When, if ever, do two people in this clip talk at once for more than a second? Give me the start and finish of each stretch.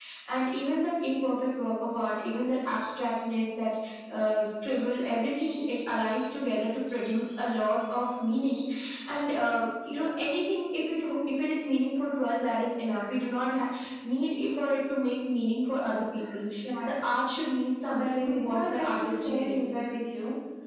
18.0-19.8

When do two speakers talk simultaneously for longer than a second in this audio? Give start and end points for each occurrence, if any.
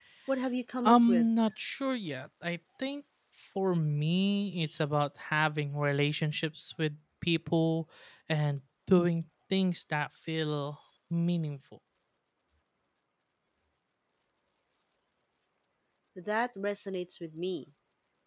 none

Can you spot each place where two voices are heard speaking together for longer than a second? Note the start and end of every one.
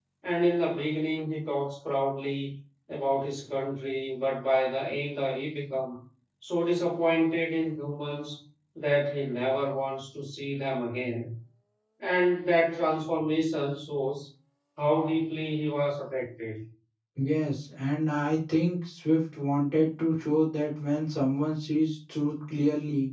none

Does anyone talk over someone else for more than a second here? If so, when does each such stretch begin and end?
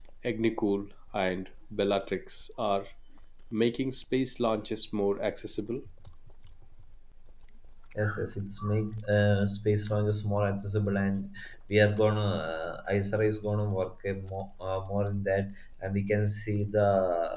none

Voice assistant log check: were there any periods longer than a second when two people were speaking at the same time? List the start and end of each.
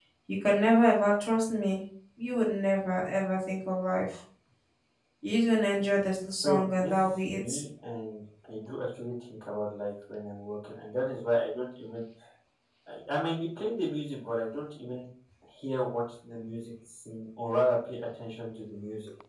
6.4-7.6

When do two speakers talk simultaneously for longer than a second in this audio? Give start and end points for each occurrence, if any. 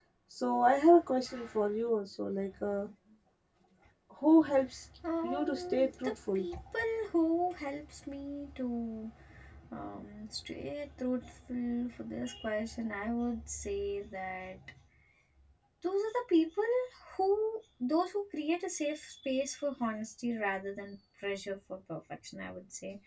5.2-6.4

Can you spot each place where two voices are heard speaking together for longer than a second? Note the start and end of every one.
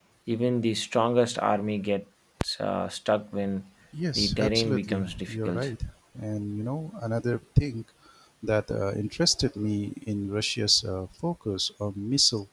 4.2-5.7

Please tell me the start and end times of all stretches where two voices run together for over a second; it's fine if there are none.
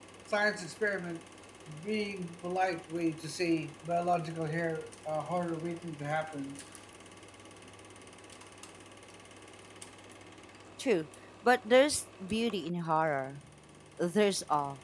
none

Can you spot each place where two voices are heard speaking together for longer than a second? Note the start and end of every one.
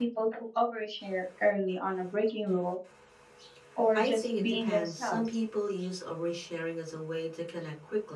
3.9-5.2

